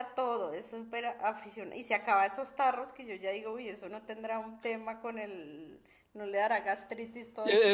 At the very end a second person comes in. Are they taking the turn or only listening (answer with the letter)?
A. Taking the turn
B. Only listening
A